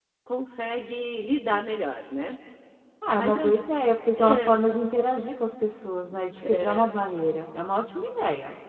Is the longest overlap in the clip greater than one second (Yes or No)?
No